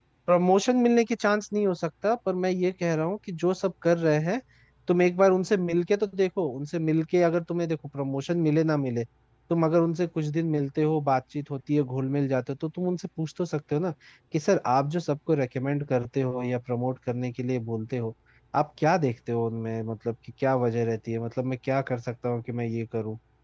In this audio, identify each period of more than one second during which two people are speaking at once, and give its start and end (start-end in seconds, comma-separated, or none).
none